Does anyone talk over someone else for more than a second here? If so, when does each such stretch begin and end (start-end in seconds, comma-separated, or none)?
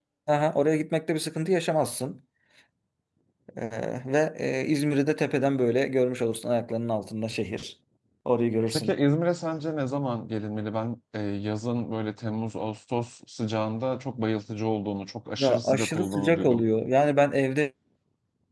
15.4-16.6